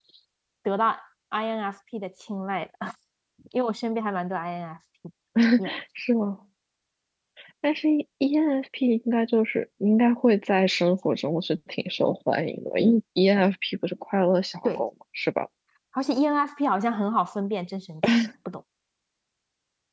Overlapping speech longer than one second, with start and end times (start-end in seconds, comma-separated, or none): none